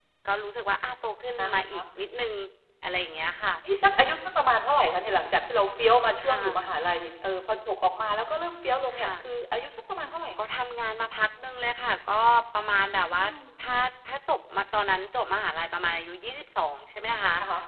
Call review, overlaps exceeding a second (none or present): none